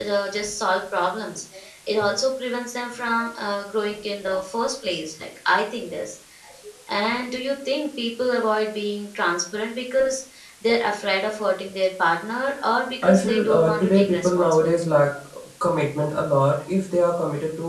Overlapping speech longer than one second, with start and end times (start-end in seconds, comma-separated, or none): 13.0-14.7